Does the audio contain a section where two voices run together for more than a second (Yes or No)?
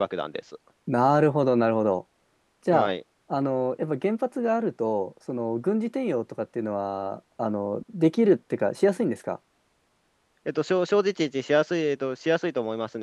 No